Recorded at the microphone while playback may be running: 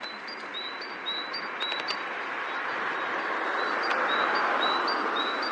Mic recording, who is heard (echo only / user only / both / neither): neither